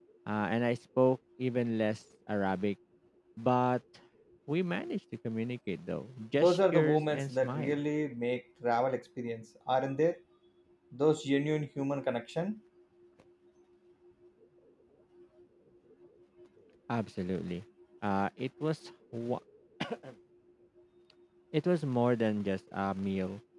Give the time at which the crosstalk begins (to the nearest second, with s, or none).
6 s